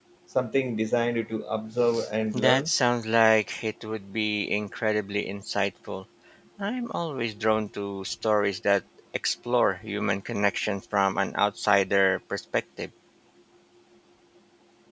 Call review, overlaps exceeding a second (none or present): none